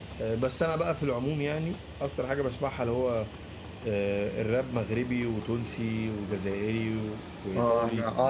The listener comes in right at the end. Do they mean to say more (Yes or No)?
Yes